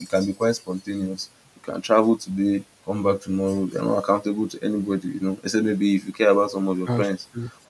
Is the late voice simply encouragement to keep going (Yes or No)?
Yes